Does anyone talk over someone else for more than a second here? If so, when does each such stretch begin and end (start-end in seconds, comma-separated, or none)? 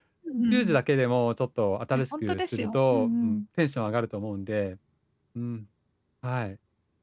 1.9-3.4